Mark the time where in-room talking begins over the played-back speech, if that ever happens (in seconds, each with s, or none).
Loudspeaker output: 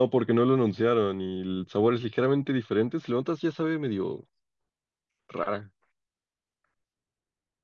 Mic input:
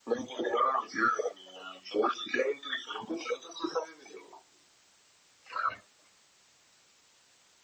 none